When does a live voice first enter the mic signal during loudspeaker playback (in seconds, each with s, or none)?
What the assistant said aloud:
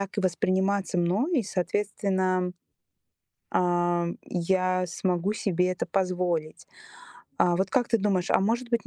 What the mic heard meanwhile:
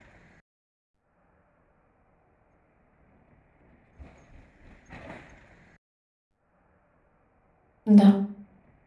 7.8 s